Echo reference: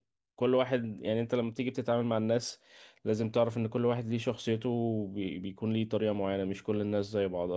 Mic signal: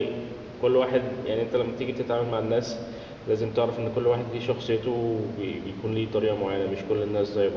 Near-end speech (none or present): none